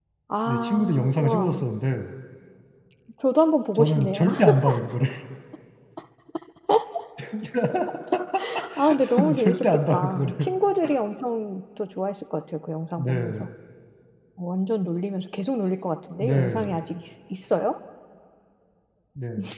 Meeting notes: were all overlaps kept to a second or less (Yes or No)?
No